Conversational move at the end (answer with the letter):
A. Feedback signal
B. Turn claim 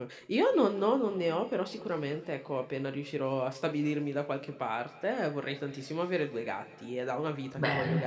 A